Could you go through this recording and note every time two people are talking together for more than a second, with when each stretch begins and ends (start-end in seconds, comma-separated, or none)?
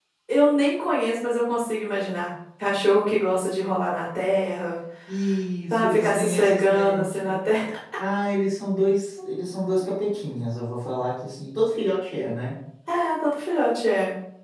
5.7-7.4